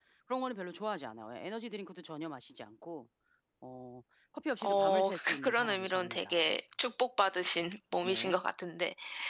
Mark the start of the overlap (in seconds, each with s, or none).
4.6 s